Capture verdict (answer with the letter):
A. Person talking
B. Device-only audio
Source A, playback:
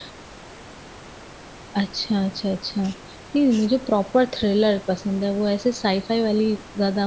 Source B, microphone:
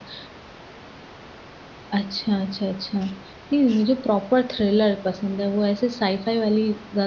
B